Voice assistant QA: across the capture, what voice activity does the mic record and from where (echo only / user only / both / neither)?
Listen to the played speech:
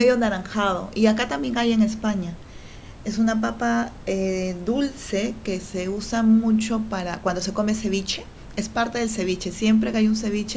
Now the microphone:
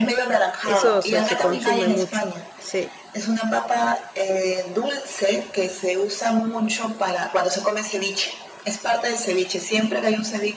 both